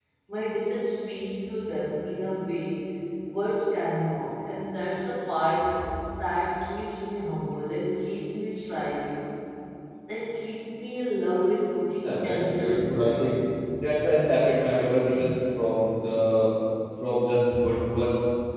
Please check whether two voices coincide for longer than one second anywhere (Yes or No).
Yes